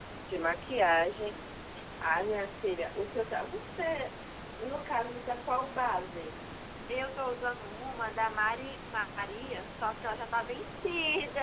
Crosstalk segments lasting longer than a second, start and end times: none

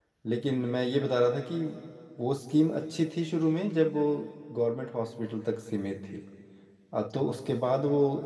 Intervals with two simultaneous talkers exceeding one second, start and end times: none

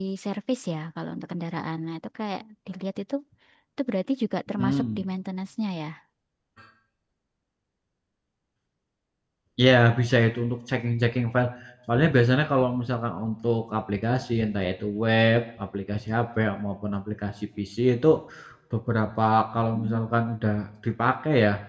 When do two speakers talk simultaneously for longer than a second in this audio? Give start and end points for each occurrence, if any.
none

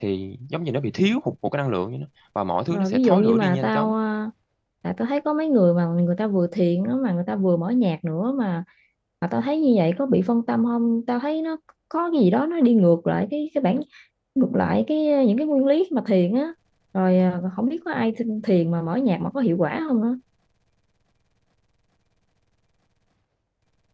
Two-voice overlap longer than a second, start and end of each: 2.7-4.0

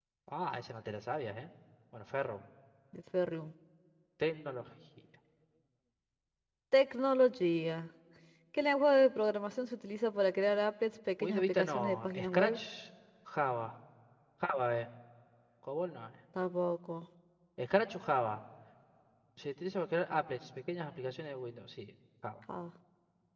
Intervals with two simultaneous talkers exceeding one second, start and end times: 11.2-12.6

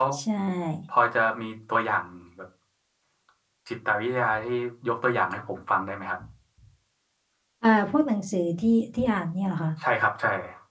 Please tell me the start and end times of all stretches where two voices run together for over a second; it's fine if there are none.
none

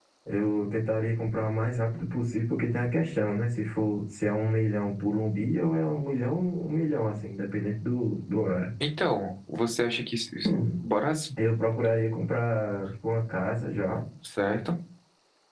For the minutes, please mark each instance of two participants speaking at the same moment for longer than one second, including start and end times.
none

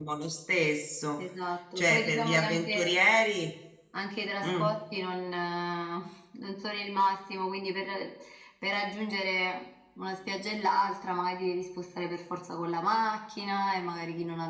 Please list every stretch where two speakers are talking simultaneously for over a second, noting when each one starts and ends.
1.8-3.0

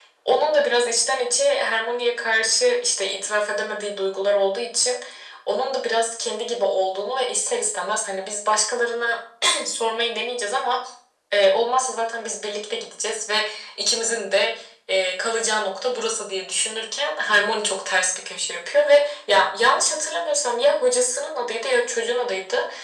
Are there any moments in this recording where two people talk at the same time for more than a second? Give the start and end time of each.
none

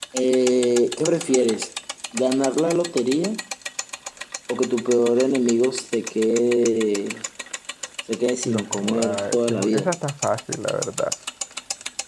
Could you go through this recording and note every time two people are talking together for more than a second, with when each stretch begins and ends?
8.4-9.9

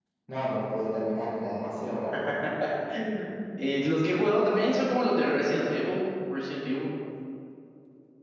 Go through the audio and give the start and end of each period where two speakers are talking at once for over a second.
none

